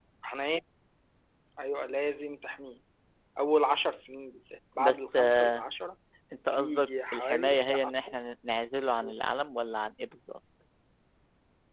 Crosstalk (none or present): present